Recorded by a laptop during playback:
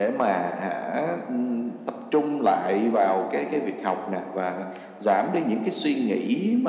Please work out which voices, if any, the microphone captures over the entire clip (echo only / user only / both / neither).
echo only